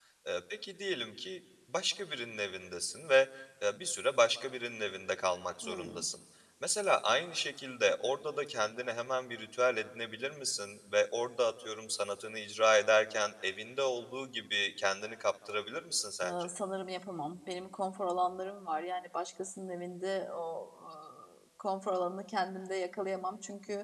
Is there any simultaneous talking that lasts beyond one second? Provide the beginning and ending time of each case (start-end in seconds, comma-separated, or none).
none